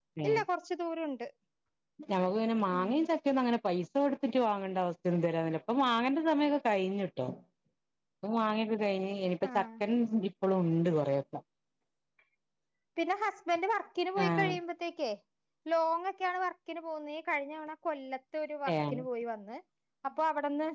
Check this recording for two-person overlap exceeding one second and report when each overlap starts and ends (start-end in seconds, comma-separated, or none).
none